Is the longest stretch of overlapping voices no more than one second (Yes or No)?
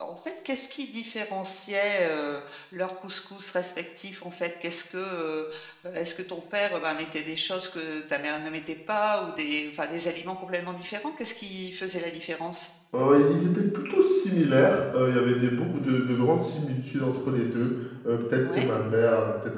Yes